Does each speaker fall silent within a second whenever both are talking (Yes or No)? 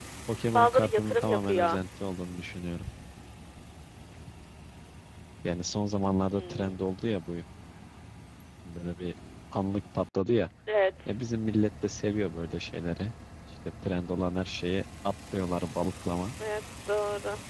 No